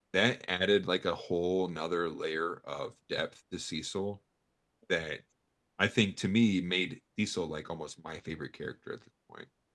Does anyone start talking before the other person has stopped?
No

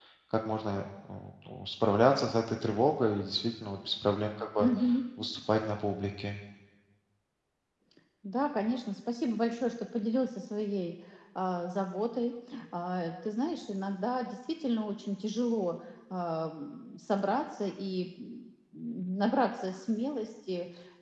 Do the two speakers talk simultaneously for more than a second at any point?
No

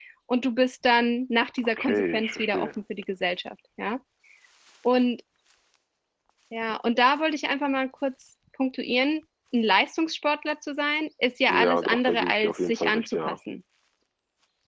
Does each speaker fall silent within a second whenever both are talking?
No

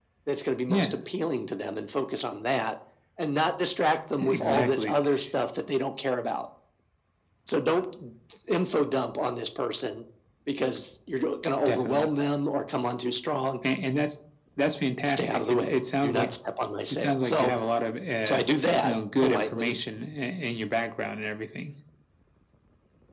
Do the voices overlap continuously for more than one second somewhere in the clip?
Yes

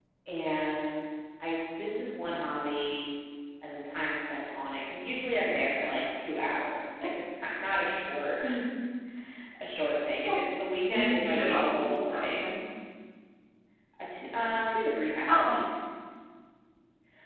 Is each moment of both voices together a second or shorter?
No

